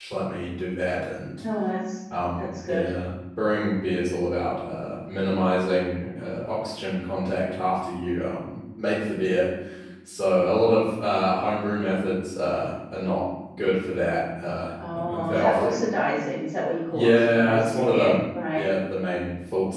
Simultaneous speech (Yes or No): Yes